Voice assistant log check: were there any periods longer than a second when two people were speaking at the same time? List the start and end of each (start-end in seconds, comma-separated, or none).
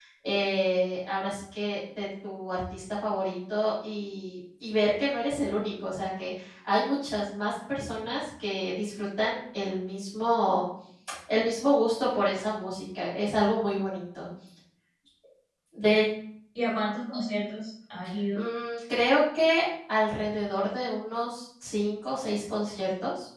none